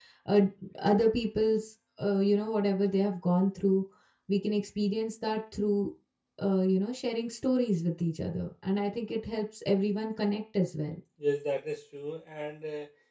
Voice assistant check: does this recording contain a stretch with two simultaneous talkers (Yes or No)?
No